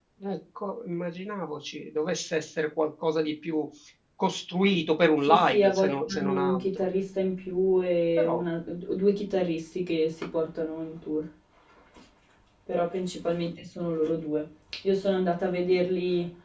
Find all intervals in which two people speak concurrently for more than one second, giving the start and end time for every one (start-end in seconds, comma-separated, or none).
5.3-6.8